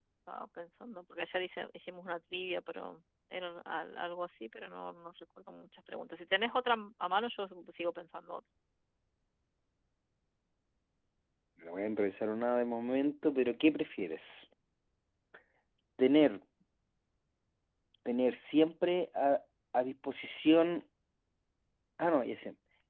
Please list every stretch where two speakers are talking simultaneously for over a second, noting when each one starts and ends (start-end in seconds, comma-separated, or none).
none